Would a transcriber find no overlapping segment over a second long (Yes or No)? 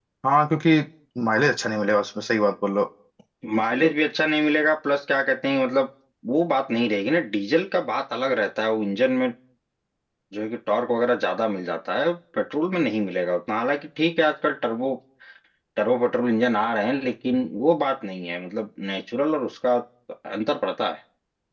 Yes